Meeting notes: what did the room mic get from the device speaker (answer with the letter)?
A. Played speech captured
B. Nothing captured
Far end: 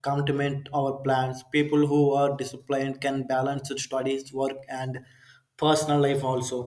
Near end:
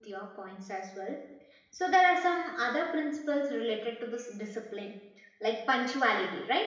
B